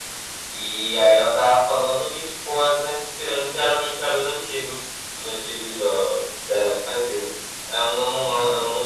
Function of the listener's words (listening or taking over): listening